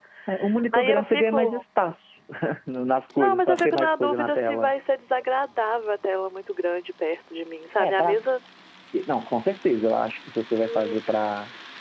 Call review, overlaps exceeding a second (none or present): present